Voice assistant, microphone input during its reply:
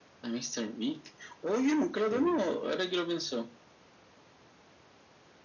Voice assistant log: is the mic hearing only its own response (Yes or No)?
No